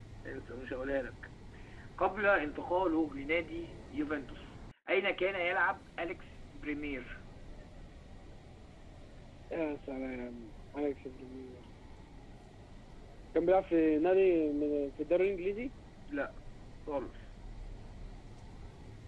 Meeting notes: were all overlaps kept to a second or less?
Yes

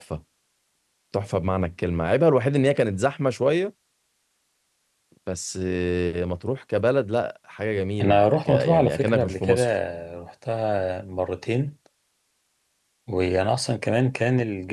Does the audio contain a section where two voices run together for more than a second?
Yes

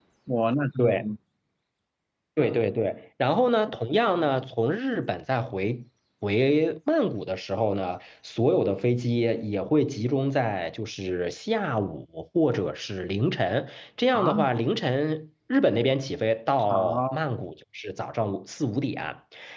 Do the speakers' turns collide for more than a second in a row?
No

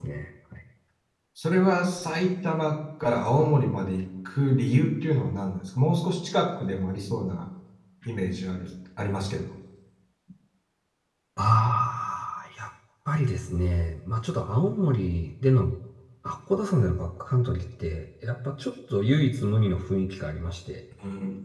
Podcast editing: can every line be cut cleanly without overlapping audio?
Yes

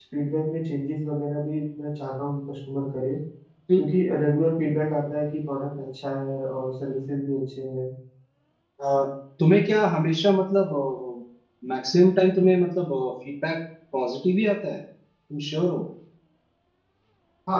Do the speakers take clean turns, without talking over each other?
Yes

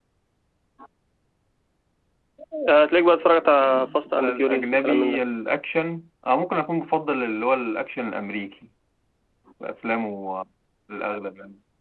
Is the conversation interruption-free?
No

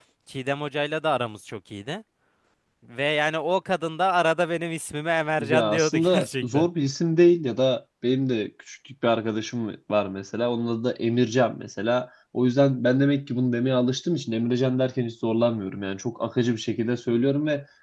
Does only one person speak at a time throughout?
No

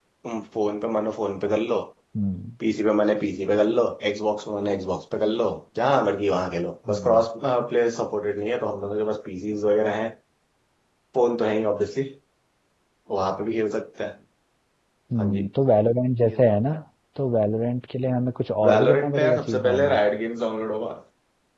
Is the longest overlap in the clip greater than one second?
Yes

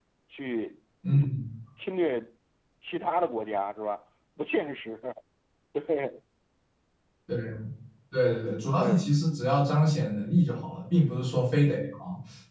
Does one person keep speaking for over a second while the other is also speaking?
No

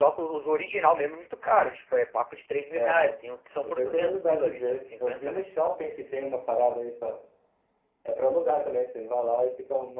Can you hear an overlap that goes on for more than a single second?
Yes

